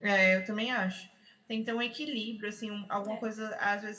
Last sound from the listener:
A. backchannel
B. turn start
A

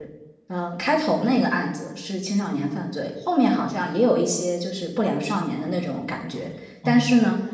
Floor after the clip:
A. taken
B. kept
B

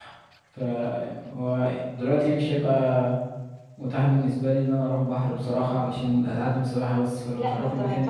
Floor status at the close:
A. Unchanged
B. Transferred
B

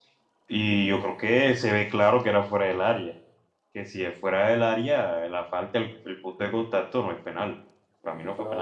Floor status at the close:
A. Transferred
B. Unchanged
A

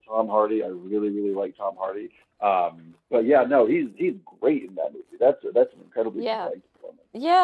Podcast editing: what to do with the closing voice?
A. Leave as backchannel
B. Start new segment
B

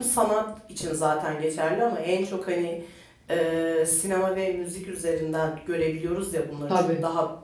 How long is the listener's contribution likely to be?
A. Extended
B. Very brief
B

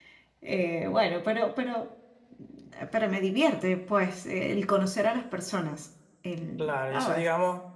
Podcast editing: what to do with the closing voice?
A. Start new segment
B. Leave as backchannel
A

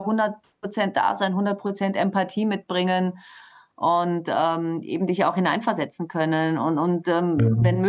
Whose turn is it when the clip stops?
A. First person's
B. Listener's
A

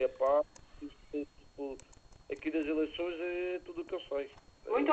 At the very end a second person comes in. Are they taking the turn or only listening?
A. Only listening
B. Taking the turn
B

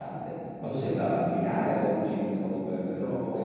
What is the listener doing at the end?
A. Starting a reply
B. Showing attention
A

